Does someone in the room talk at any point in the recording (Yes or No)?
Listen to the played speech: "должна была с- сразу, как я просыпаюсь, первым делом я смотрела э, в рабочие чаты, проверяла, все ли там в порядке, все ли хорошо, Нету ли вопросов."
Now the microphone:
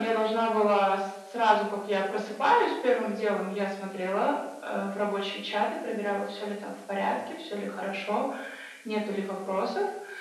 No